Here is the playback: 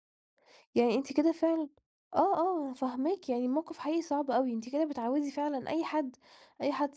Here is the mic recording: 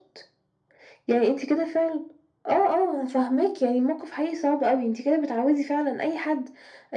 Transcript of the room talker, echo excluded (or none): none